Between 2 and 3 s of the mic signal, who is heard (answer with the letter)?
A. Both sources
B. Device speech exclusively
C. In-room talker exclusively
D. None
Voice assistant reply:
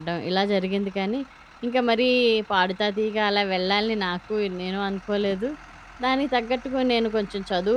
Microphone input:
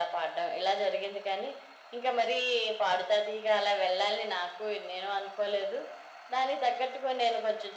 B